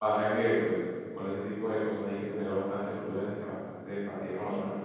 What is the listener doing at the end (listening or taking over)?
listening